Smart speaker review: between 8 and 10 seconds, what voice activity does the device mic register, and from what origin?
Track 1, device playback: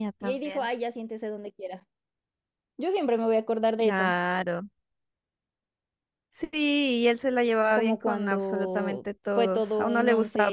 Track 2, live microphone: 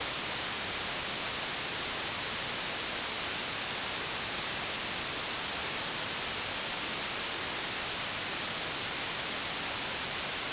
neither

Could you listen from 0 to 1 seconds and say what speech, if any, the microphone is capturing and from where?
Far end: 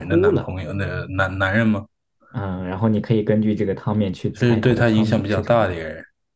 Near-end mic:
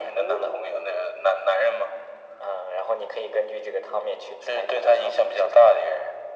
echo only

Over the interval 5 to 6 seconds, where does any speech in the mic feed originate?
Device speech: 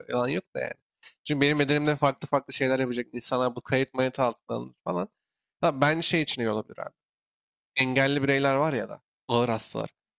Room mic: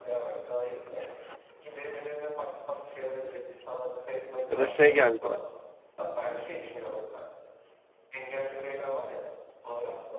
both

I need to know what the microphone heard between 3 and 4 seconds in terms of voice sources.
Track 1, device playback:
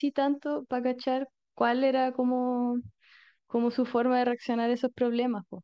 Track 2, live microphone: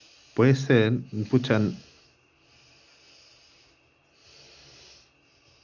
neither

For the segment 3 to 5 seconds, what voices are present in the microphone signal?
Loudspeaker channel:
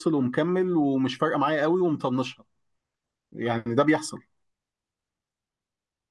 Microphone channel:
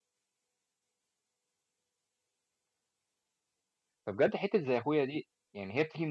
user only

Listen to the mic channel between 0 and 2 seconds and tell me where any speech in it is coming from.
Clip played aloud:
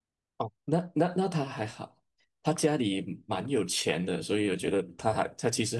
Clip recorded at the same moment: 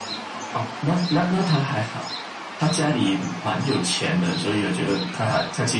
echo only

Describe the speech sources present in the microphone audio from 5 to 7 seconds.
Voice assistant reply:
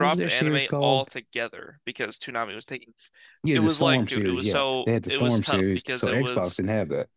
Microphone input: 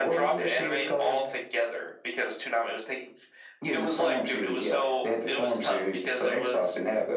echo only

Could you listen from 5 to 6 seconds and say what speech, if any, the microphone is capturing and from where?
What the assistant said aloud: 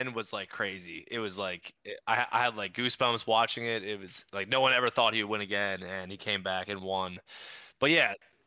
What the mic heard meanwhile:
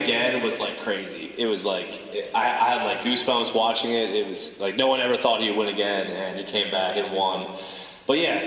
echo only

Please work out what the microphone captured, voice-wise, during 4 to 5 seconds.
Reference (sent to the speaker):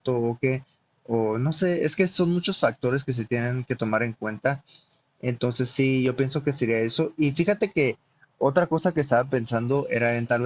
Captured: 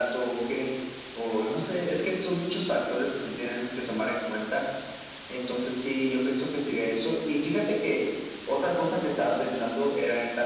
echo only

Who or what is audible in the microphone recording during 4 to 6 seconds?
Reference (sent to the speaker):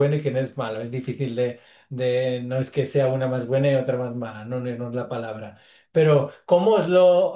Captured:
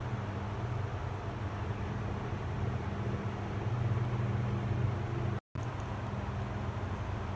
neither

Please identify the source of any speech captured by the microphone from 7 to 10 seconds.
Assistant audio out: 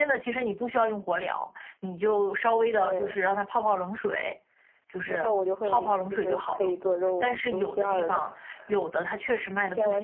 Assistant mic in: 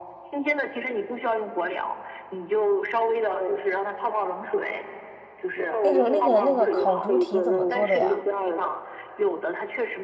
both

